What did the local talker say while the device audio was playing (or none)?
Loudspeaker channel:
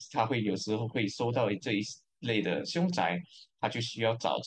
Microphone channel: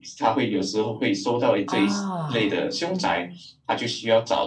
啊，